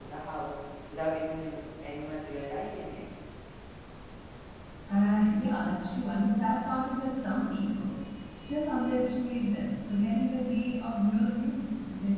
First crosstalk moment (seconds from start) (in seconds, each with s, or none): none